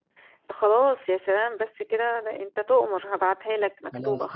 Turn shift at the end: Yes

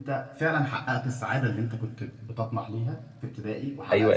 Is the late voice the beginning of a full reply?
Yes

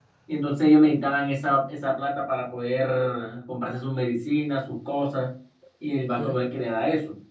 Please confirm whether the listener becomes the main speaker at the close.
No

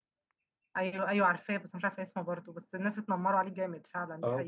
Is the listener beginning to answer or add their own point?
Yes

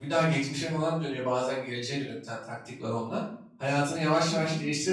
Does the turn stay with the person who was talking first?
Yes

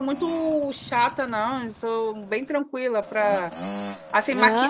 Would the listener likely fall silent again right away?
Yes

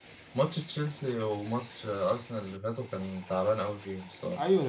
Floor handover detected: Yes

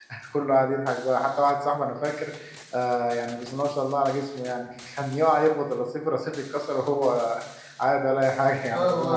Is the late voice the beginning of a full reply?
Yes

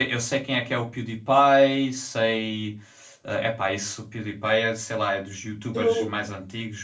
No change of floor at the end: Yes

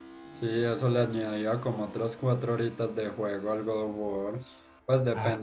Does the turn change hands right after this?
No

